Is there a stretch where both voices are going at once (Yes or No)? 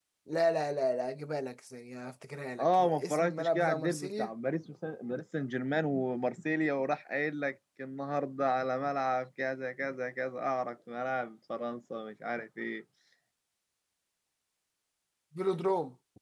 Yes